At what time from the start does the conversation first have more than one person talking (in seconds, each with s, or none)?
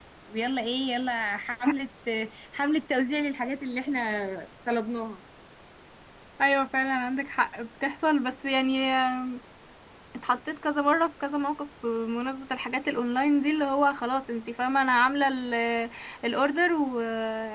none